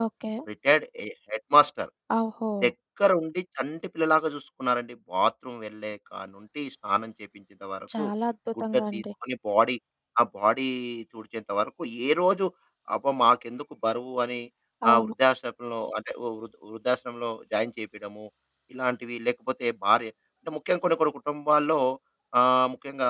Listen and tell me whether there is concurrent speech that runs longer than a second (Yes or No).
No